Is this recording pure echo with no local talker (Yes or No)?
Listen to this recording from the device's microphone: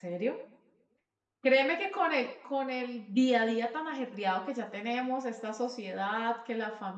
No